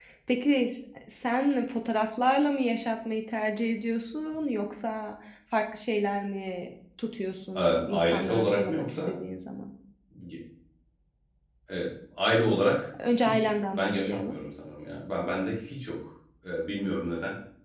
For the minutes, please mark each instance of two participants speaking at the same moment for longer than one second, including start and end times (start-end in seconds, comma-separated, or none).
7.6-9.2, 13.2-14.4